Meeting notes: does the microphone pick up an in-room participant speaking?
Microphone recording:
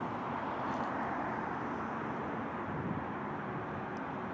No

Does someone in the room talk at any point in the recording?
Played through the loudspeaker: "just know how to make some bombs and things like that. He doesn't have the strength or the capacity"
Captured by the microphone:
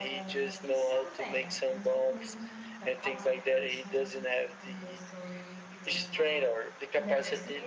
Yes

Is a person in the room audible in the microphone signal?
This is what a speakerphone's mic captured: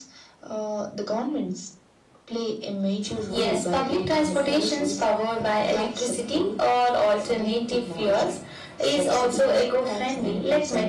No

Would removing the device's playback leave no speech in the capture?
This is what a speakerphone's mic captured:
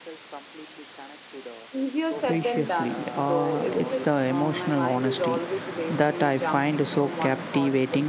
No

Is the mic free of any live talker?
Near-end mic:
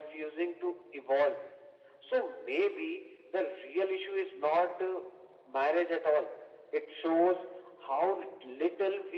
Yes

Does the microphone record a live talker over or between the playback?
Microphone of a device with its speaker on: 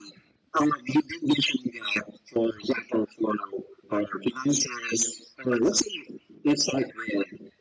No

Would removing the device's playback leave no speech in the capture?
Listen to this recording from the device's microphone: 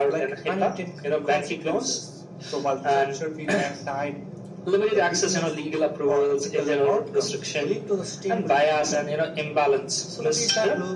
Yes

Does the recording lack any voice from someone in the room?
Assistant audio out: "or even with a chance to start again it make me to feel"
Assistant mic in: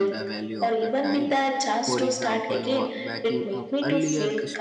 No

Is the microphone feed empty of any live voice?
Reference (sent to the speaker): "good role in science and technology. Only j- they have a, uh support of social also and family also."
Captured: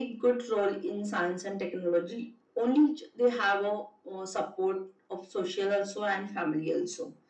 Yes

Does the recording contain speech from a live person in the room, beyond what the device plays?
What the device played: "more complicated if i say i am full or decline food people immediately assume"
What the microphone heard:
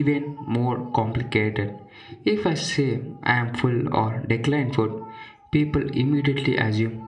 No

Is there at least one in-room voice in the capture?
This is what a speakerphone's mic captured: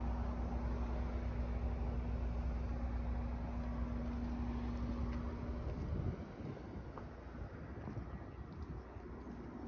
No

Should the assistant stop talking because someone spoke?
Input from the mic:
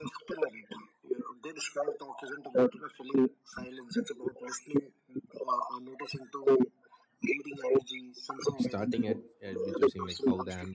Yes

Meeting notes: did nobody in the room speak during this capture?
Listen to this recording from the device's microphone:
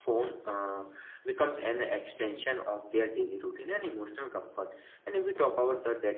Yes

